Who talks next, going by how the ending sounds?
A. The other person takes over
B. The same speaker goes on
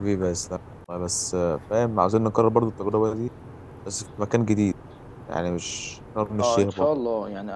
A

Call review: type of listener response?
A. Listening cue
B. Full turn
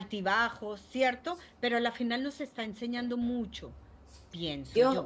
B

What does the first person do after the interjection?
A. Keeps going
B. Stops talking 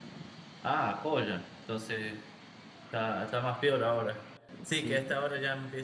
A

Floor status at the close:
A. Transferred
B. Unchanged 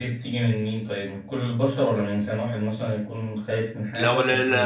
A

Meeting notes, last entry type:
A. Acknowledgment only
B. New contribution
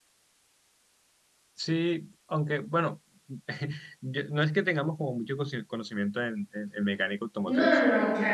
B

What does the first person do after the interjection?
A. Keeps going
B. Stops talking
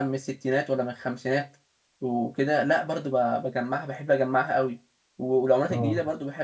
A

